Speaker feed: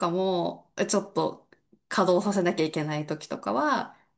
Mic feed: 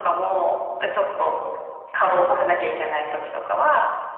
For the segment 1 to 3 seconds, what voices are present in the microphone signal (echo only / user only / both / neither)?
echo only